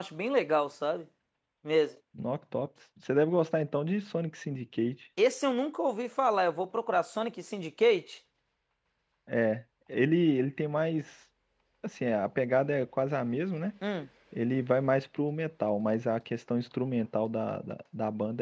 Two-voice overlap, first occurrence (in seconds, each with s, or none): none